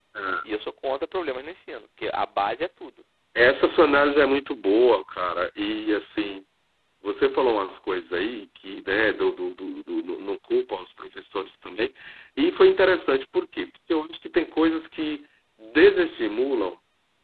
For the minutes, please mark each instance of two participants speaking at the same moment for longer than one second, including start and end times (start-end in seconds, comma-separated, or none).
none